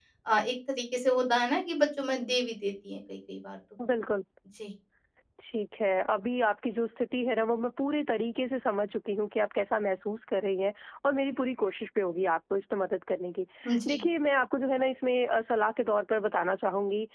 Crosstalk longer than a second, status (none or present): none